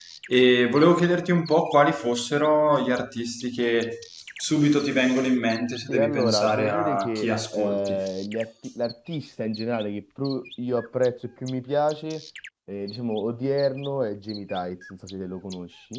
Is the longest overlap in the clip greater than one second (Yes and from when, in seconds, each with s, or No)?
Yes, from 5.9 s